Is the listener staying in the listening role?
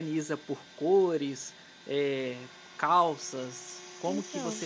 Yes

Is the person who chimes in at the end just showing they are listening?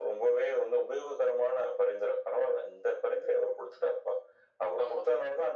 Yes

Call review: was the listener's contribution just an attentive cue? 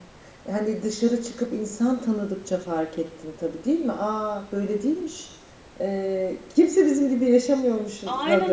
No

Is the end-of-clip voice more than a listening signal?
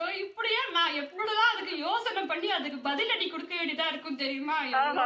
Yes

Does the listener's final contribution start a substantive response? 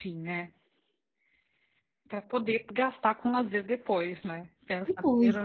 Yes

